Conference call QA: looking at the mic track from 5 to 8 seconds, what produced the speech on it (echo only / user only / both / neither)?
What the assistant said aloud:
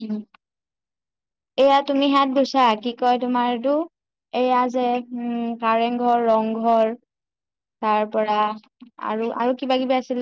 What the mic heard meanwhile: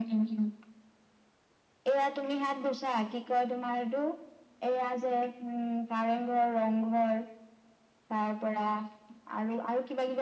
echo only